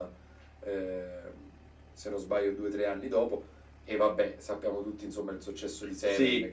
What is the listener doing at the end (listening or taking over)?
taking over